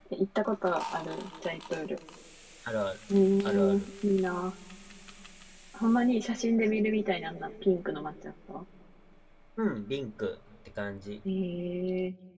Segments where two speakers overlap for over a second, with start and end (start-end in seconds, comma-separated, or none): none